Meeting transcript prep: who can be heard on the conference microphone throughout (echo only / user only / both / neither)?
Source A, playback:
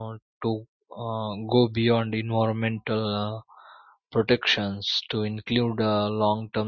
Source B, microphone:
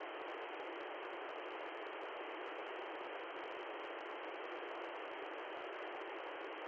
neither